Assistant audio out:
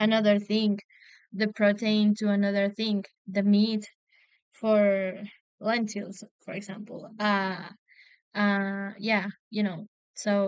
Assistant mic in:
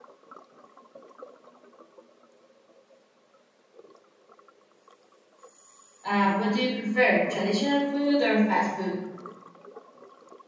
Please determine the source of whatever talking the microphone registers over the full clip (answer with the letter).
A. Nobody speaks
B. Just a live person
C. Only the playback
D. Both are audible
B